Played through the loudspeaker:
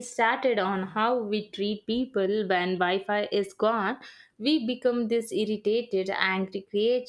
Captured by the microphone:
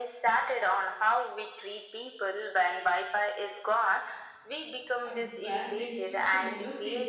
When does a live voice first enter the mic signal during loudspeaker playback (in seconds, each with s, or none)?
5.0 s